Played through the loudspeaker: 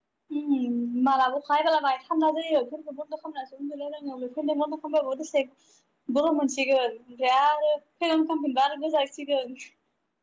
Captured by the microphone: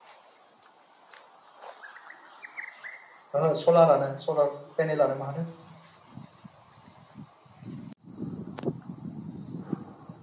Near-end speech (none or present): present